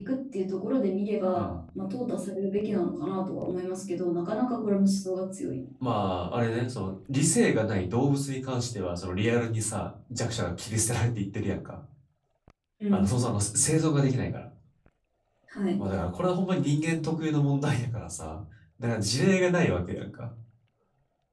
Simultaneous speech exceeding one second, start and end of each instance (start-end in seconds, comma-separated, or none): none